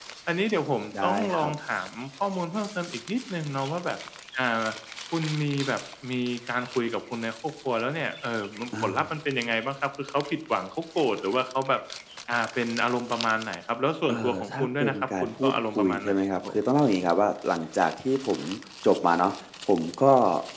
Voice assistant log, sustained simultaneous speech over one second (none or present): present